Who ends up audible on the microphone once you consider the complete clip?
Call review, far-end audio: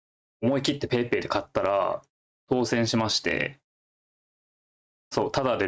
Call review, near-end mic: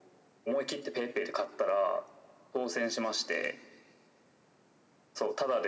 echo only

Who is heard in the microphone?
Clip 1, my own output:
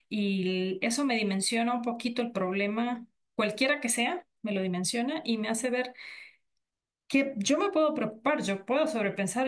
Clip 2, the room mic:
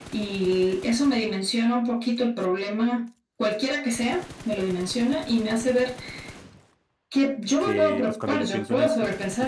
both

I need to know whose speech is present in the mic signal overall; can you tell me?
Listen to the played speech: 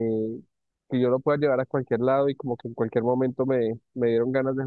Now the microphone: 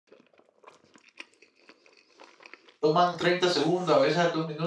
user only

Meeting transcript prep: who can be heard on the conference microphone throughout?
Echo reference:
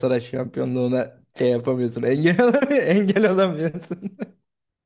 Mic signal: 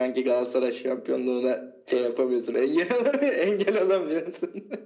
echo only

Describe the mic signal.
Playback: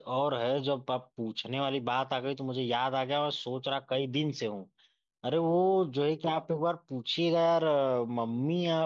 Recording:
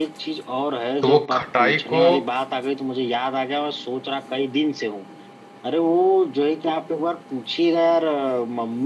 both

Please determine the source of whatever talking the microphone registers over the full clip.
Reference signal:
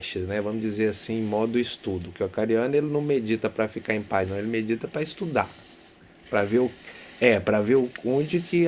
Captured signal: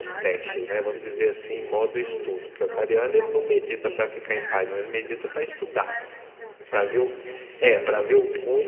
both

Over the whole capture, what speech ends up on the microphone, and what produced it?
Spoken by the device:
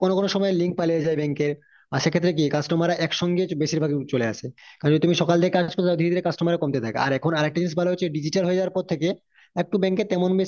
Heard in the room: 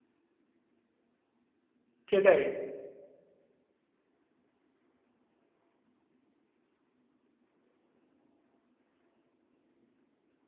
user only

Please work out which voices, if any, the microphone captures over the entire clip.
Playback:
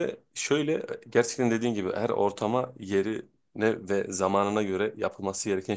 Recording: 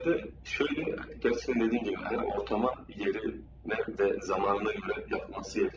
echo only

